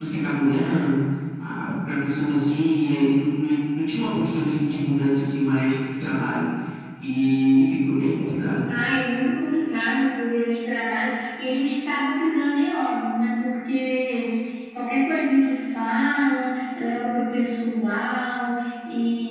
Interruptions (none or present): none